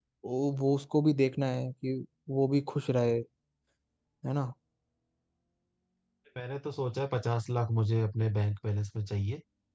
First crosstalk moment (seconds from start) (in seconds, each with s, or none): none